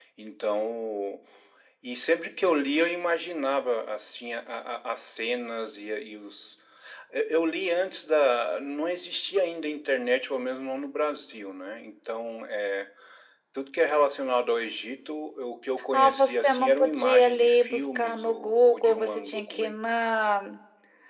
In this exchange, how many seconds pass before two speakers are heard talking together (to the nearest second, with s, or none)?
16 s